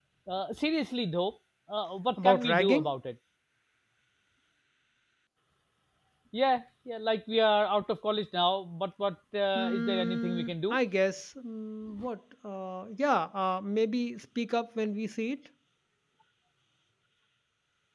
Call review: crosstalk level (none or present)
present